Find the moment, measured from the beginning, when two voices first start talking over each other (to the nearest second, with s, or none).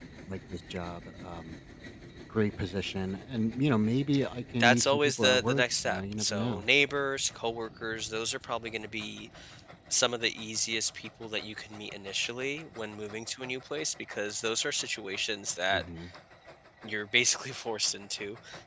5 s